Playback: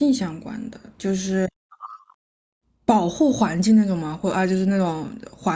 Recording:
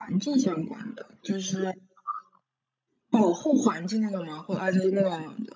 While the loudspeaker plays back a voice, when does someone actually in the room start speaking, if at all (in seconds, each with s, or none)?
none